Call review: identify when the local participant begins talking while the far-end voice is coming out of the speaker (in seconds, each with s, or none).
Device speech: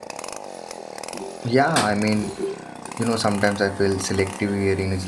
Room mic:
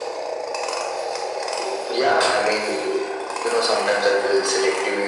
none